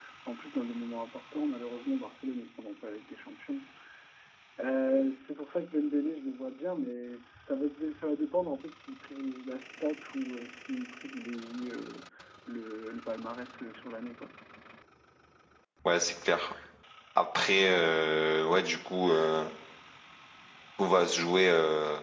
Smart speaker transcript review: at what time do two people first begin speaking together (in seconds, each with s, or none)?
none